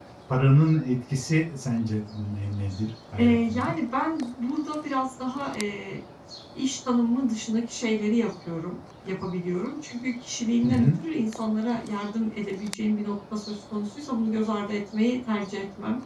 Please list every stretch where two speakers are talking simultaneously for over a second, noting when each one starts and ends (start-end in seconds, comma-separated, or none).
none